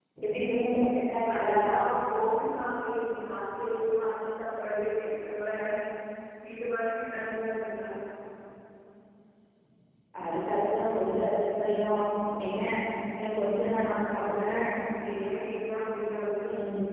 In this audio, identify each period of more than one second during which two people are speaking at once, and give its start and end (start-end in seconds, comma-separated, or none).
none